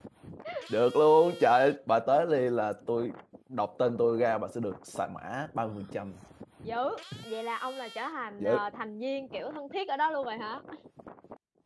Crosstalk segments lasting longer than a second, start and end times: none

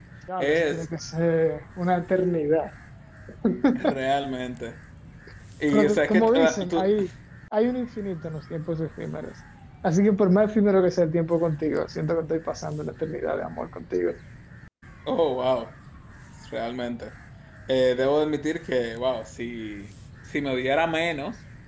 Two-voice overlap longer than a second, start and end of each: 5.7-6.9

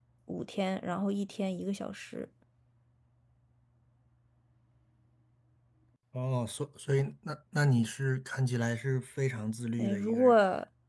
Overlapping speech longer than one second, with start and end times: none

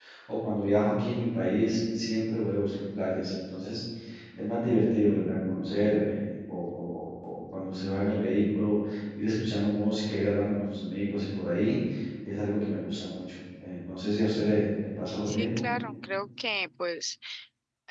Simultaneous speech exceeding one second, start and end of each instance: none

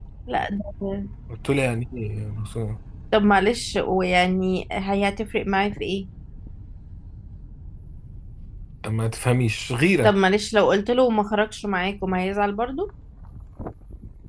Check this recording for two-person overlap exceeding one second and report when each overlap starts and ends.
none

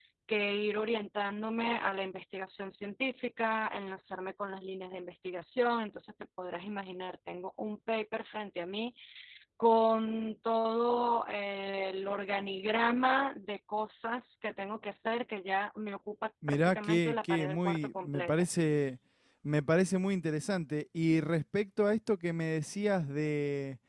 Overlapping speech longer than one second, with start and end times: 16.5-18.4

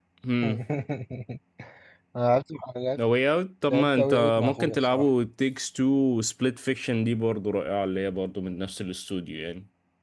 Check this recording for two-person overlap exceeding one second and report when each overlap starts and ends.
3.7-5.1

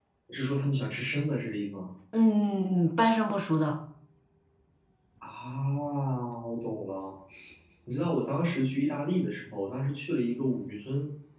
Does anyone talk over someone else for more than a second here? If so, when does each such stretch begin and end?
none

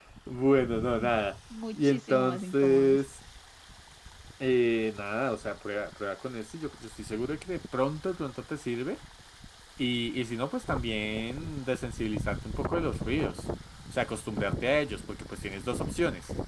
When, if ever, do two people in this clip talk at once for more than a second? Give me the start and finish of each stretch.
1.7-3.0

